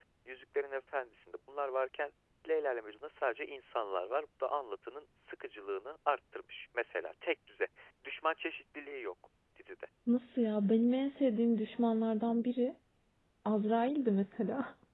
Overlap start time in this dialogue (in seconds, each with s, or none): none